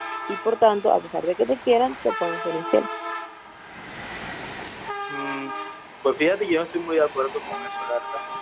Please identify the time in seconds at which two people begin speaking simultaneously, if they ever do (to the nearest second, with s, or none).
none